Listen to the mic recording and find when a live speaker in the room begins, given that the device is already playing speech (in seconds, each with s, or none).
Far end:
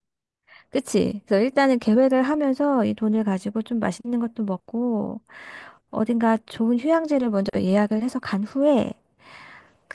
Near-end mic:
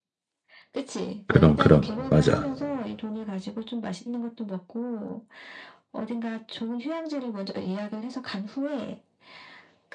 1.3 s